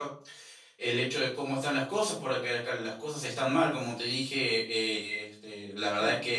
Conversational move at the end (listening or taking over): listening